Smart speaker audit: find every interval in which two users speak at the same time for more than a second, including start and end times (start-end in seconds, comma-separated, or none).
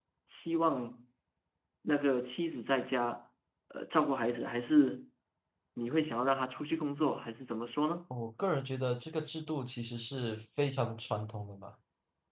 none